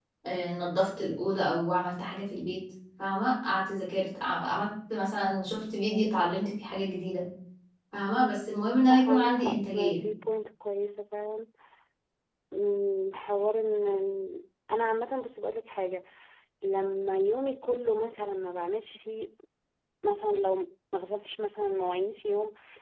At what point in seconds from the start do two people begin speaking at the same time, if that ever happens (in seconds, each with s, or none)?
8.8 s